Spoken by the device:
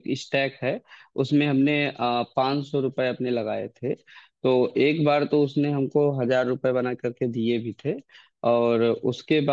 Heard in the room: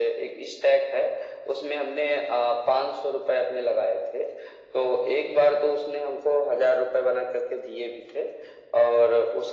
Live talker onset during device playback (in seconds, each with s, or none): none